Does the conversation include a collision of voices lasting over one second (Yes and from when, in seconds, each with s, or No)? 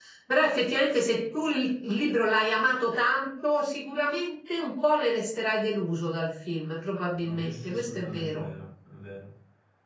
Yes, from 7.2 s